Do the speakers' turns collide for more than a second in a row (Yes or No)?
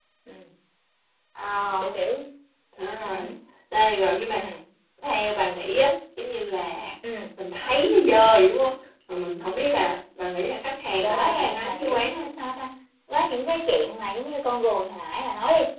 Yes